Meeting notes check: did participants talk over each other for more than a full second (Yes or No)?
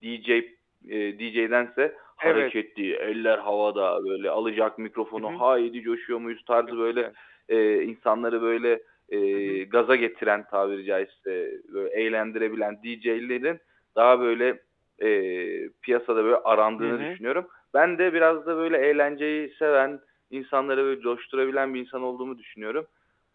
No